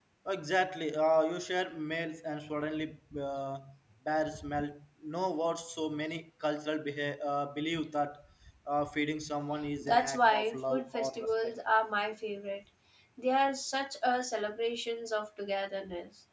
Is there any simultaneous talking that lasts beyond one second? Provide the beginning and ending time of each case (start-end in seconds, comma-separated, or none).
9.8-11.5